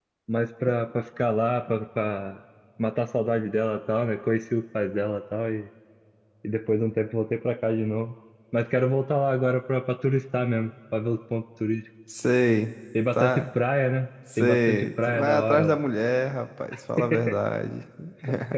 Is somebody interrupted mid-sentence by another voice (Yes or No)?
Yes